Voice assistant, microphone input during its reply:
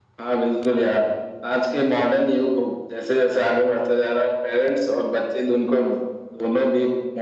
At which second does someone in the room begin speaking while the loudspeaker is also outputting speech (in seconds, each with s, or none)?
none